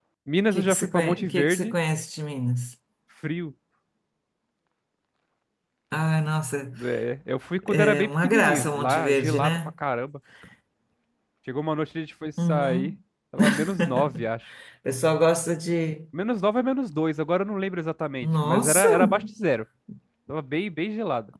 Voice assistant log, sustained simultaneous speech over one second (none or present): present